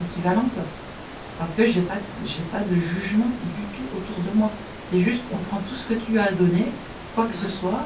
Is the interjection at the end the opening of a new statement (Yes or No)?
No